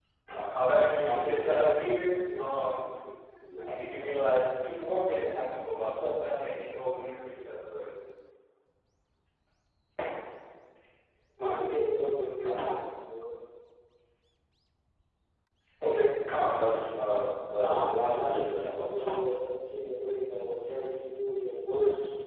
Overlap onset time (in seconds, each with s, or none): 0.6 s